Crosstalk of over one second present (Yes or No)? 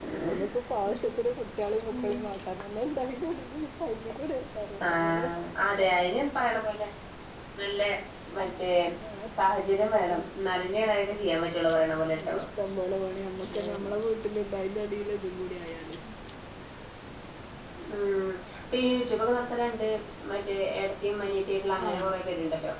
No